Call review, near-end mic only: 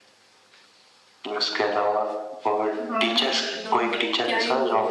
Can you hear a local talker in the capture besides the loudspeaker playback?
Yes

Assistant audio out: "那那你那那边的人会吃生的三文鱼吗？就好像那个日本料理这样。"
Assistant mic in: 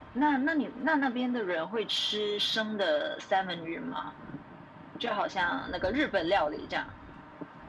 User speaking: No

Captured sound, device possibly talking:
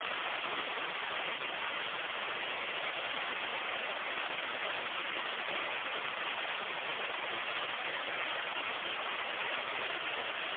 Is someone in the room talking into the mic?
No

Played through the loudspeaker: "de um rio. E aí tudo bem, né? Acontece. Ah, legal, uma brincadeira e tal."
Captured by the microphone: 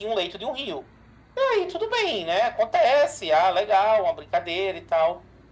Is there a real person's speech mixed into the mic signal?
No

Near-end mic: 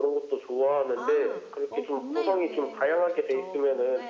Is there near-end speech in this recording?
Yes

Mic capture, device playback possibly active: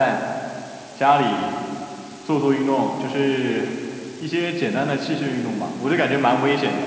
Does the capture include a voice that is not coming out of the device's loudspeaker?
No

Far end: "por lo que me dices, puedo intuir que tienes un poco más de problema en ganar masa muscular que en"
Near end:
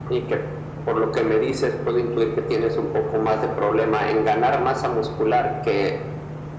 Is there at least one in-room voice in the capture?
No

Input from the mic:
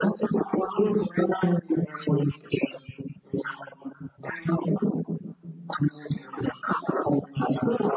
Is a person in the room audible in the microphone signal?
No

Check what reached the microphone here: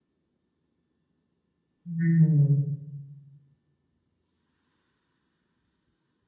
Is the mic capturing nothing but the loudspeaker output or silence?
No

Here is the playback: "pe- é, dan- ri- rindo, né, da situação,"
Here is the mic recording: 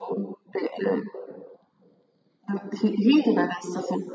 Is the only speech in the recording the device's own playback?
Yes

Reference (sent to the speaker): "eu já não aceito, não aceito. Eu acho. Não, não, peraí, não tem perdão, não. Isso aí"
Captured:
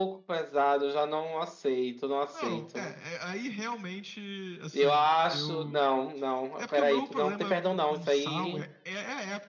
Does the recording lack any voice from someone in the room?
No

